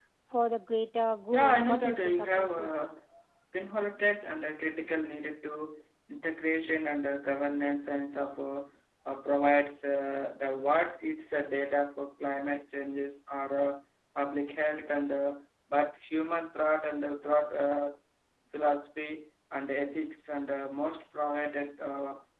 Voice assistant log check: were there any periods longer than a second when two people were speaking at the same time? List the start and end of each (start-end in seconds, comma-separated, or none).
1.3-2.7